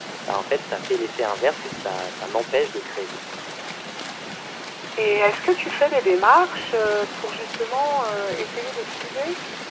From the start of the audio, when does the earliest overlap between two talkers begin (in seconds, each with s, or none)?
none